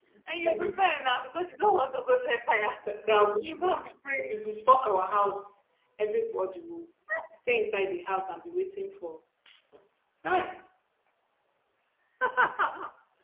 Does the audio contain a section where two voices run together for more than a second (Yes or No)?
No